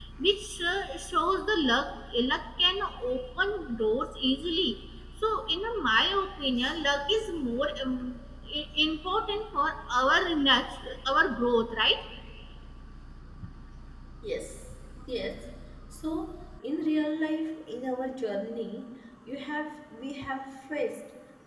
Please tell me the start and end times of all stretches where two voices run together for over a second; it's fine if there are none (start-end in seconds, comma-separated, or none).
none